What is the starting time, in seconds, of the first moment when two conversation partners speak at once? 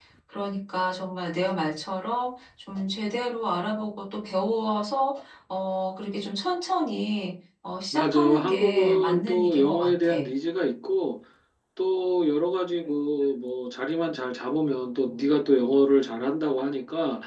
7.9 s

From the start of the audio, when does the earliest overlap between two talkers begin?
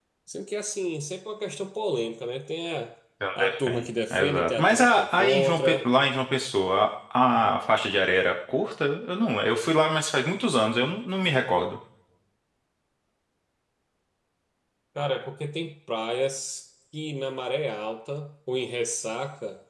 3.4 s

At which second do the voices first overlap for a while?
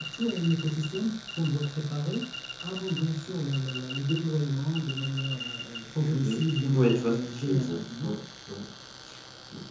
6.0 s

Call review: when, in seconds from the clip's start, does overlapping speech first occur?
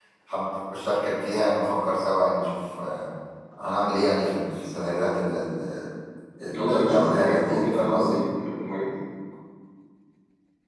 6.5 s

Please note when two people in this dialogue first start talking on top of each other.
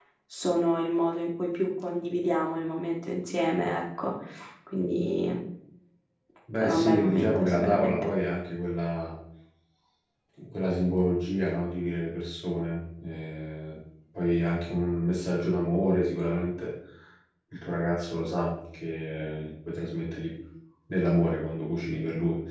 6.5 s

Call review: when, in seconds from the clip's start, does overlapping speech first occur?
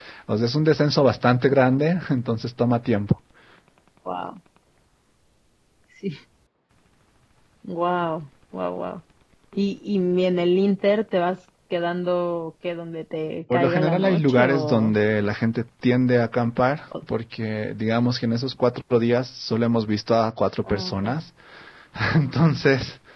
13.5 s

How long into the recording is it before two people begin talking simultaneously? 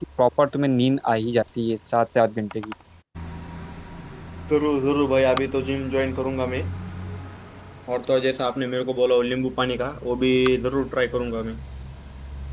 none

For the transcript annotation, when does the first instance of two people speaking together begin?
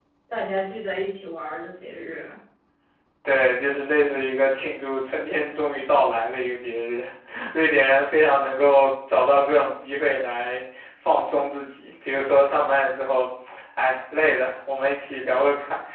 none

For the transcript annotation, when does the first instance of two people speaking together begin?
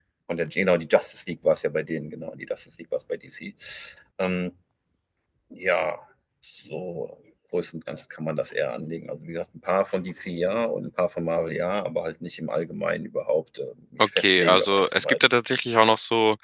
14.0 s

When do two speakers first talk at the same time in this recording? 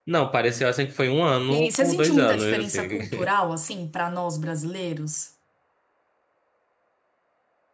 1.5 s

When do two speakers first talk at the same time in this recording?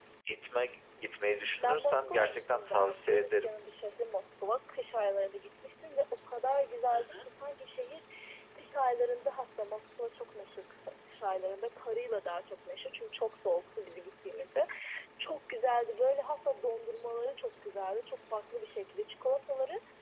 1.6 s

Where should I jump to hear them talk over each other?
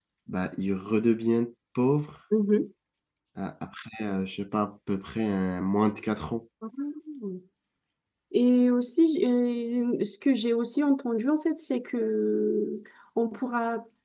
none

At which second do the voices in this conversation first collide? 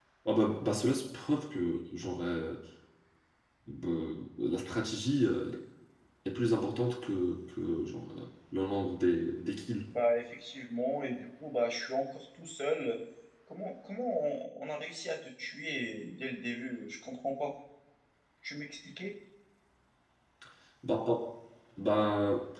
none

